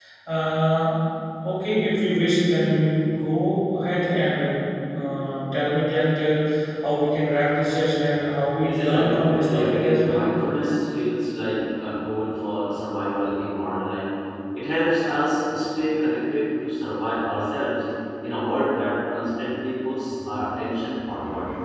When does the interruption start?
8.6 s

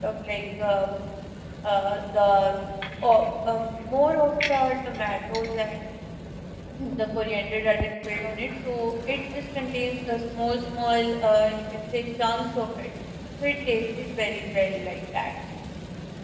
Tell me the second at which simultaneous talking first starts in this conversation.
none

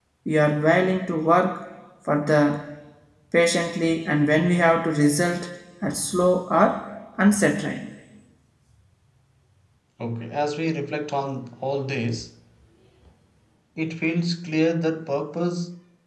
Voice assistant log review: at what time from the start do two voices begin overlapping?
none

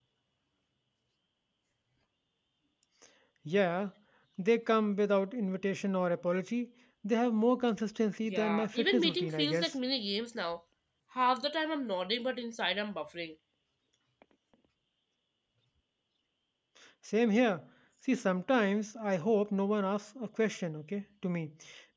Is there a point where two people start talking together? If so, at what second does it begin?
8.2 s

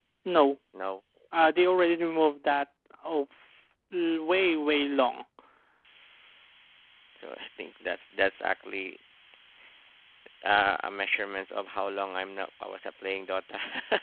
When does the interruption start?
none

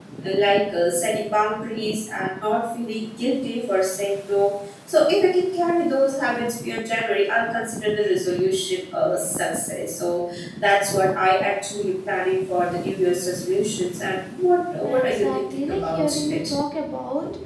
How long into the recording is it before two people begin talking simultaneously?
14.8 s

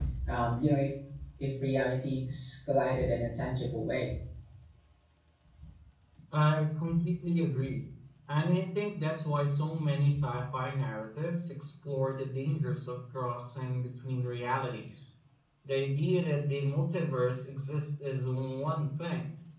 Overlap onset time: none

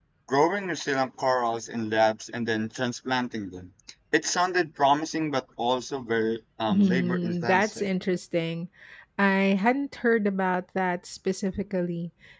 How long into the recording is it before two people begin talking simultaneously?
6.7 s

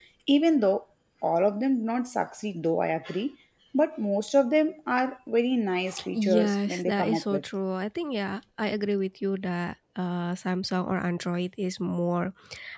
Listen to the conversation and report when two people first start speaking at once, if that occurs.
6.1 s

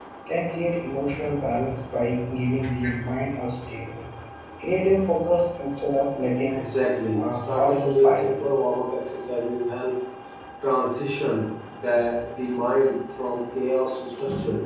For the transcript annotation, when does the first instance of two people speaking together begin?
7.2 s

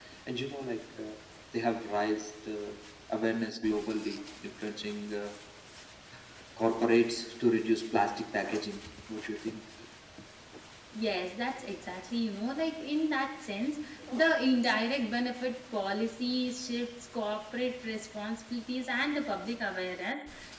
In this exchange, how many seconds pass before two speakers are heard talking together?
none

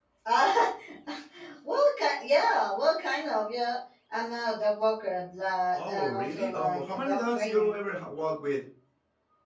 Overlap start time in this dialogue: 5.7 s

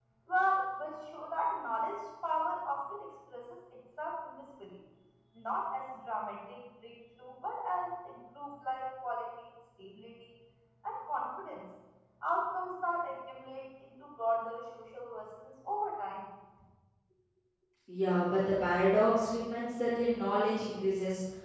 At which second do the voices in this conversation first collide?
none

